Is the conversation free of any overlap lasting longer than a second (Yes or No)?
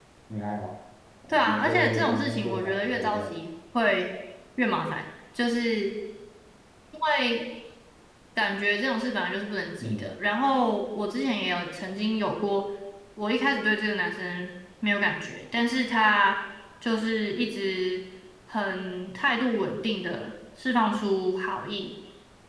No